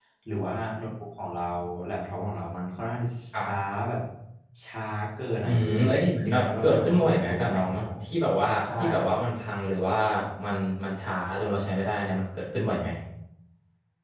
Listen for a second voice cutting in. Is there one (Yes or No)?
Yes